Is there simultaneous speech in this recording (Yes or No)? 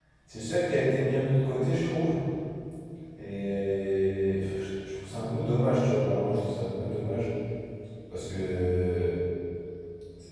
No